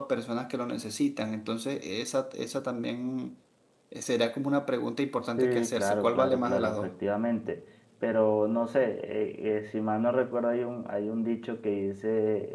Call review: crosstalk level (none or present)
present